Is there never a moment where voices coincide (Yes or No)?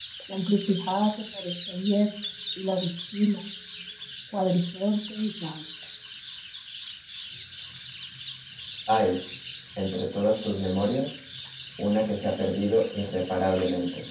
Yes